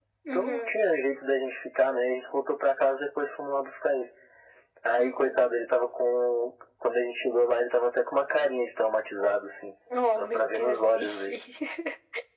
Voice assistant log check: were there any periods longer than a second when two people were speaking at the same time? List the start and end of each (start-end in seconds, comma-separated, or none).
10.2-11.4